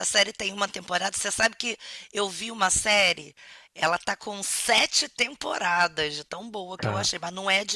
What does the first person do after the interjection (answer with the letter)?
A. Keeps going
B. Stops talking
A